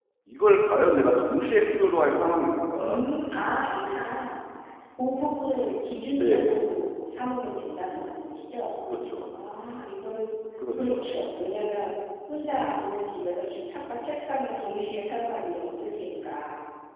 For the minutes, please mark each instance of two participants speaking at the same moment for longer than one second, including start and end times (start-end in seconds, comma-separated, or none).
none